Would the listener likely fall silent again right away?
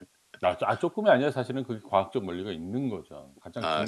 No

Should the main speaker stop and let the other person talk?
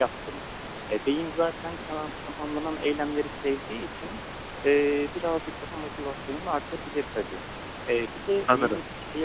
No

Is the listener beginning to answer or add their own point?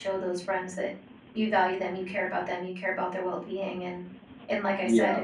No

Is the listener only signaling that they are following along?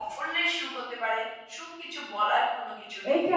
No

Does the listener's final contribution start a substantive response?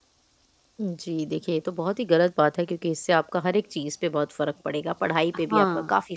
No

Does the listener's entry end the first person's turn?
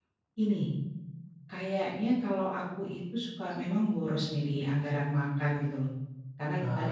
No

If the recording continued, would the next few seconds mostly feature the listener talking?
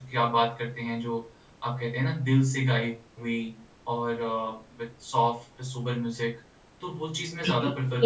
Yes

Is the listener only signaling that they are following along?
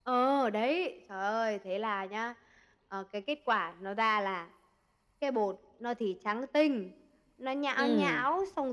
Yes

